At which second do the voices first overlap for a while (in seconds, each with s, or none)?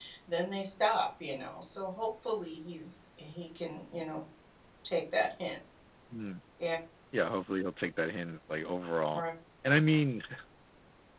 none